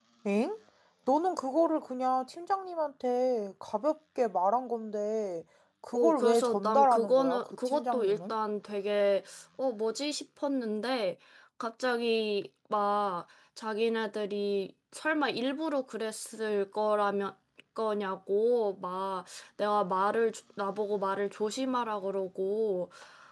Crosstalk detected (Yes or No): Yes